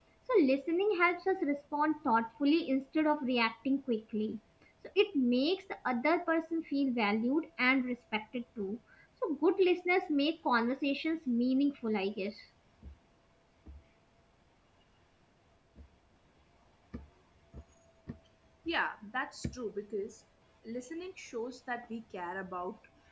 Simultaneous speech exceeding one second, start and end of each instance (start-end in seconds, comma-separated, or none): none